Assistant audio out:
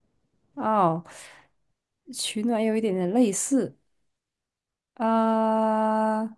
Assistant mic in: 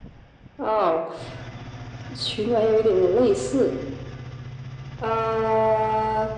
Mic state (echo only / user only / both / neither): echo only